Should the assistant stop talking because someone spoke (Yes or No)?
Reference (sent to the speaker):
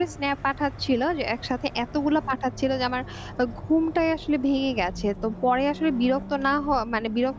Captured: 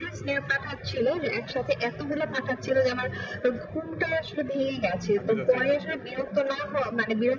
Yes